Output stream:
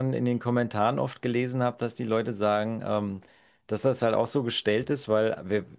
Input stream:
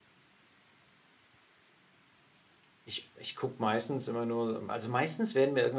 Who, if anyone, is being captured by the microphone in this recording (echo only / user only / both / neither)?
user only